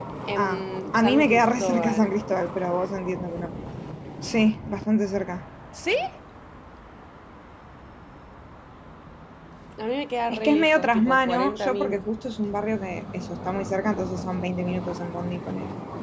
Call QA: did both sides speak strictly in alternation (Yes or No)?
No